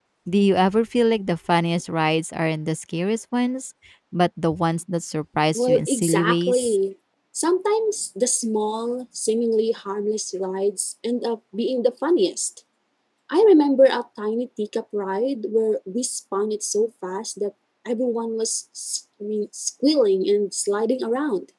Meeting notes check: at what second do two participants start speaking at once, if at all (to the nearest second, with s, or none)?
6 s